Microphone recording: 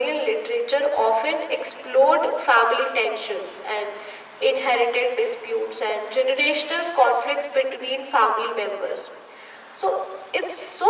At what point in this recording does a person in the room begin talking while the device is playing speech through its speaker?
none

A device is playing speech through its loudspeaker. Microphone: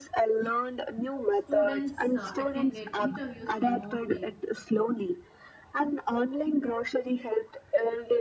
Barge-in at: 1 s

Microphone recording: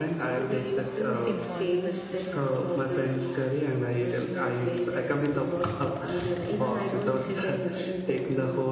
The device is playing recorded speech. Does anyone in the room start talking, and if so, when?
1 s

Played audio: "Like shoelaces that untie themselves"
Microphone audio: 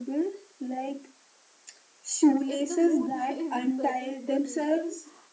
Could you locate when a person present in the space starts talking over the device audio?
2 s

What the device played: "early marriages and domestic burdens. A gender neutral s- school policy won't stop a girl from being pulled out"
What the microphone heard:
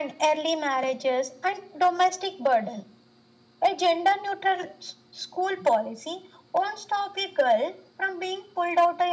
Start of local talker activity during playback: none

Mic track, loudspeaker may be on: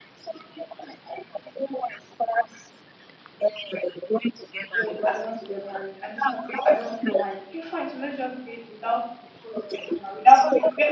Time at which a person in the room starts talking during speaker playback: 5 s

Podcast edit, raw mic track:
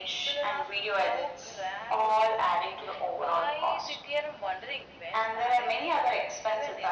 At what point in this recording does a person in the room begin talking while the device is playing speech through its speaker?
none

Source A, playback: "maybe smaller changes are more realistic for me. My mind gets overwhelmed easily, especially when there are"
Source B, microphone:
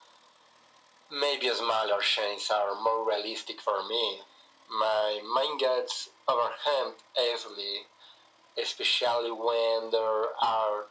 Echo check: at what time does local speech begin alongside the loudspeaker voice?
none

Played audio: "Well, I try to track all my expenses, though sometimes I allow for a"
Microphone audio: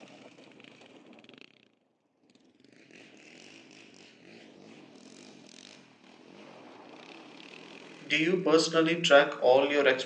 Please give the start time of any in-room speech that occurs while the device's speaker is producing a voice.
8 s

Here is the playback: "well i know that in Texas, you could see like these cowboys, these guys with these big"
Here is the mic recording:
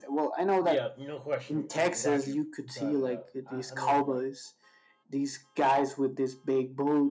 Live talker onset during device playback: 1 s

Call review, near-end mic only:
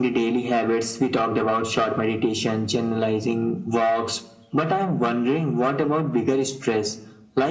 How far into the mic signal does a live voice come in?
none

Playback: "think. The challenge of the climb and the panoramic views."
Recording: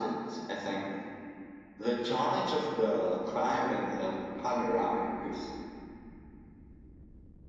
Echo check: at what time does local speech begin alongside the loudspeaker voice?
none

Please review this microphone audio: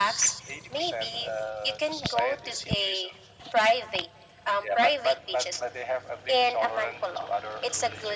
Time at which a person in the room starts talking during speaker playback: none

